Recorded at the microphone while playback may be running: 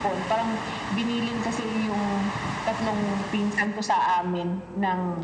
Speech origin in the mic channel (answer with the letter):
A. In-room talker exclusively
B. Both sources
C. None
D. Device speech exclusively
D